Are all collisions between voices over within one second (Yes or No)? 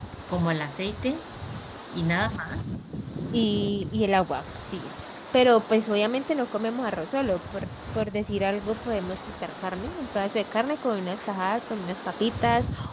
Yes